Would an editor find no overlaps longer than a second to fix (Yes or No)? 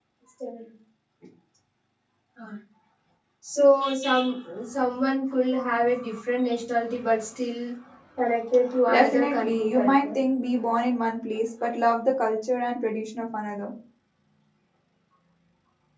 No